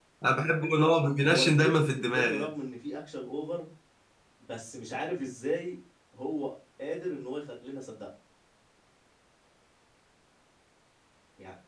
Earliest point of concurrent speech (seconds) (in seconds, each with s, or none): 1.2 s